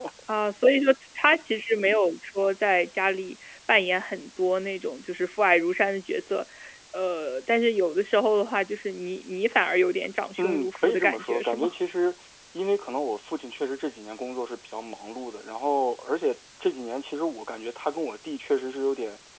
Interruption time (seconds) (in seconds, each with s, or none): 10.4 s